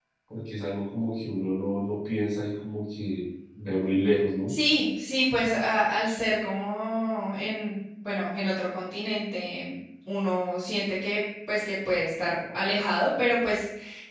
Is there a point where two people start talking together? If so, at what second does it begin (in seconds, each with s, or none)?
none